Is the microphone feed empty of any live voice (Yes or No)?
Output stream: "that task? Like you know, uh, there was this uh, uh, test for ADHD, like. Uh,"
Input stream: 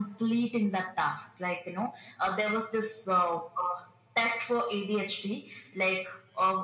Yes